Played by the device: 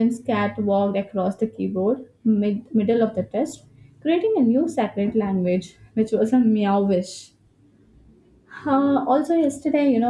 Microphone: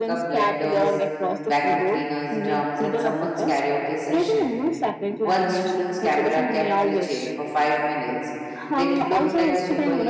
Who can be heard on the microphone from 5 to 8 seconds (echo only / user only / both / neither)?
both